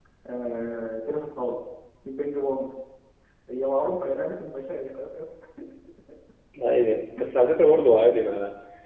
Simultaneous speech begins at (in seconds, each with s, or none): none